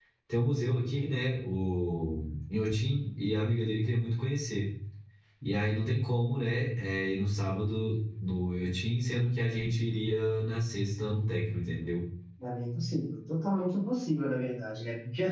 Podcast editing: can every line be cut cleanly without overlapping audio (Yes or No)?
Yes